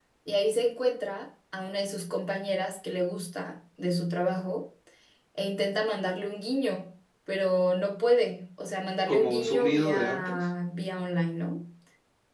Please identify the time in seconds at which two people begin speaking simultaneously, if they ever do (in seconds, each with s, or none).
9.1 s